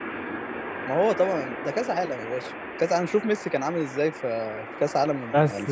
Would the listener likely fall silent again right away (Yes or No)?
No